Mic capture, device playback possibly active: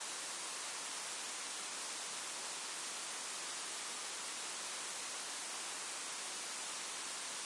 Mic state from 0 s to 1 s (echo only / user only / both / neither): neither